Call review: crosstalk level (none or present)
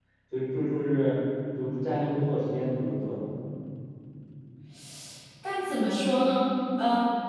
none